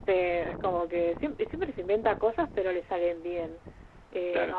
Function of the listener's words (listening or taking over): listening